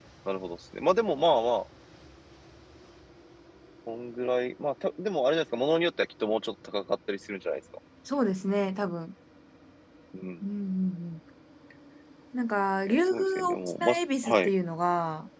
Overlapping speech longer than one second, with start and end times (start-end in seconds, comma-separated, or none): 12.9-14.5